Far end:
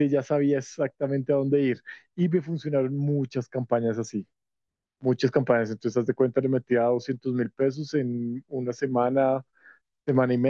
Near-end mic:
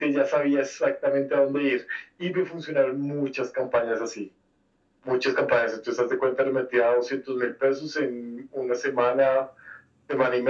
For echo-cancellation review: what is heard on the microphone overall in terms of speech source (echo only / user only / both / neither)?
echo only